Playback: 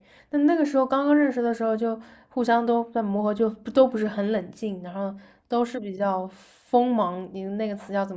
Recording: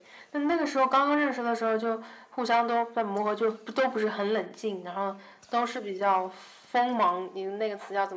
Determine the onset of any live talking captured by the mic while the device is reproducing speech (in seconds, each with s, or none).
none